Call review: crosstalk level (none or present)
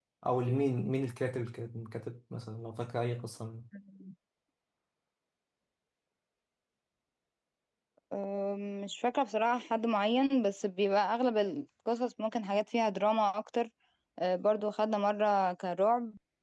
none